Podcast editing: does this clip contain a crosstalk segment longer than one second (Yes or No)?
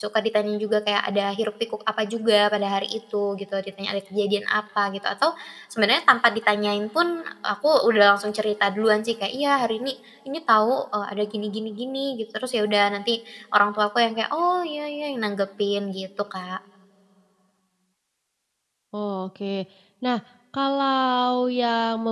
No